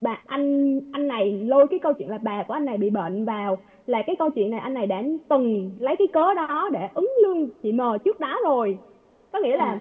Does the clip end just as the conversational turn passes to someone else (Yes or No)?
No